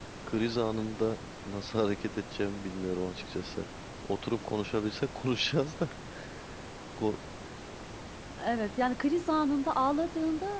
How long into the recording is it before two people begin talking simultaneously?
none

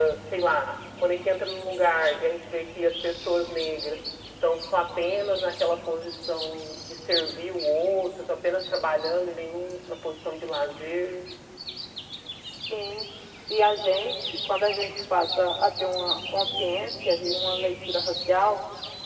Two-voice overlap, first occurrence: none

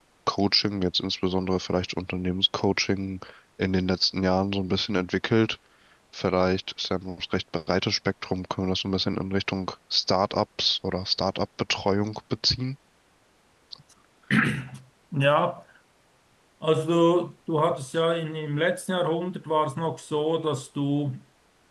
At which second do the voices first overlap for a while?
none

